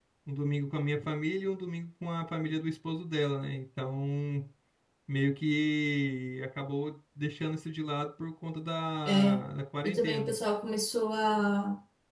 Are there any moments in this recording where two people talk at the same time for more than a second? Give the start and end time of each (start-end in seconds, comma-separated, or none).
none